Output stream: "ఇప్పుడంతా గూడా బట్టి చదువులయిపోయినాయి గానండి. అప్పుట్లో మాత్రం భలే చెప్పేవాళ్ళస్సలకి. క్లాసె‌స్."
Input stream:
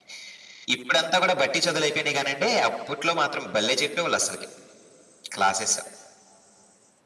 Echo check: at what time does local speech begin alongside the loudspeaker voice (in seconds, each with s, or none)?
none